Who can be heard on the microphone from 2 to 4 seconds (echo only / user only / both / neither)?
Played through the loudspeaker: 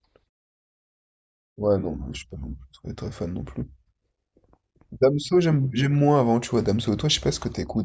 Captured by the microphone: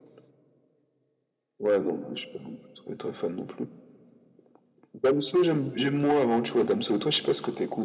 echo only